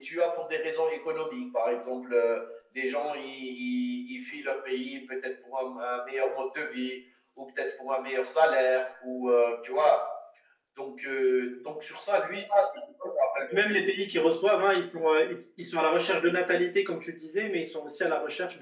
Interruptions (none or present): none